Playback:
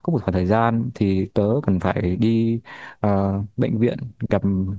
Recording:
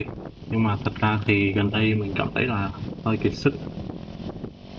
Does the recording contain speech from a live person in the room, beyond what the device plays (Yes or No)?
Yes